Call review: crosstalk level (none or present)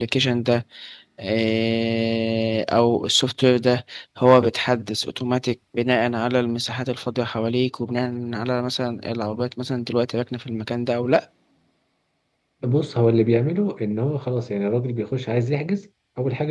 none